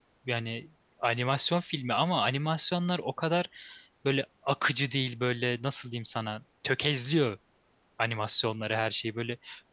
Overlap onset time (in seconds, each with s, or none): none